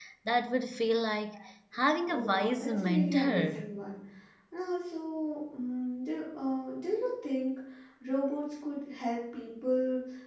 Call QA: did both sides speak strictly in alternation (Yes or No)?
No